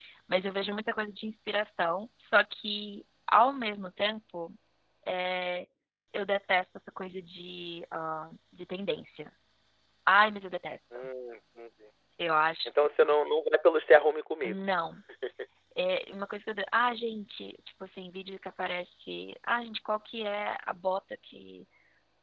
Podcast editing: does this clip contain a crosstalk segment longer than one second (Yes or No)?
No